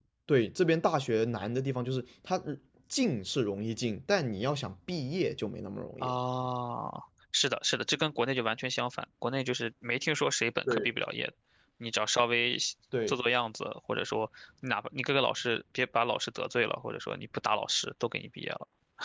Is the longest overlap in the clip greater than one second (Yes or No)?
No